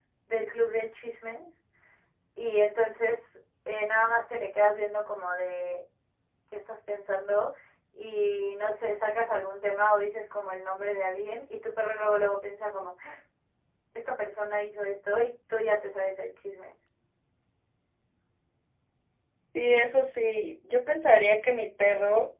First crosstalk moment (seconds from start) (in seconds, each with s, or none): none